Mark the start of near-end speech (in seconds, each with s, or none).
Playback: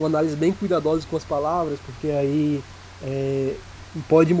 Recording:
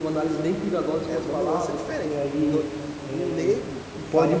1.1 s